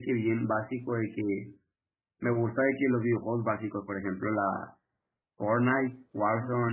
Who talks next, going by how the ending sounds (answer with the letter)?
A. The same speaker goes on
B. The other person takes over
A